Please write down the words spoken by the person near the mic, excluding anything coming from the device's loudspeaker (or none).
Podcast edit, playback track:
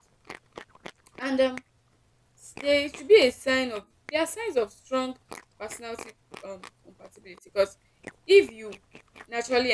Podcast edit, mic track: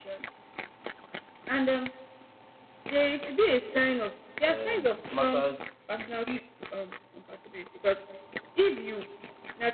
Um, it matters a great